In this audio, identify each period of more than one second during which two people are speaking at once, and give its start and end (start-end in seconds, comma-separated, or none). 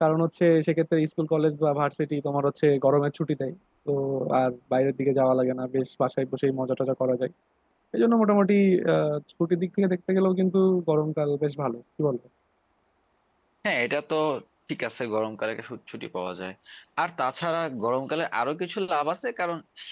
none